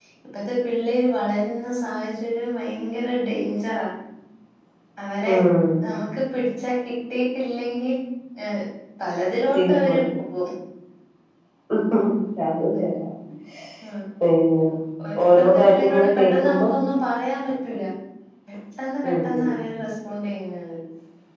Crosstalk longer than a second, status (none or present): present